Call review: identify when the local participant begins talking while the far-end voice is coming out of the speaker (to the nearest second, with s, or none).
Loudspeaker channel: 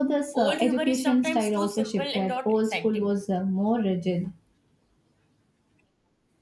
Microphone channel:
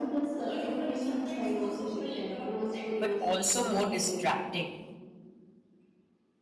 3 s